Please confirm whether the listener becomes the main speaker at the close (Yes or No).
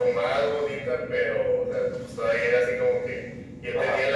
No